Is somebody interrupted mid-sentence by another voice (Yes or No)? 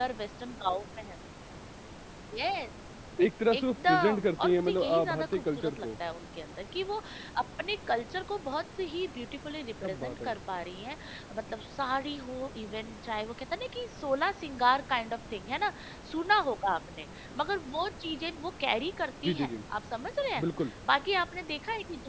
Yes